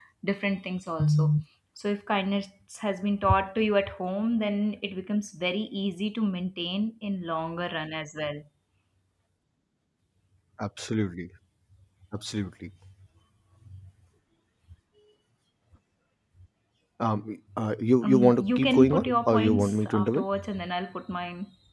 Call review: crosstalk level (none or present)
present